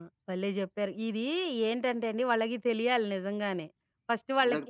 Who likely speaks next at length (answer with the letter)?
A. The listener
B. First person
B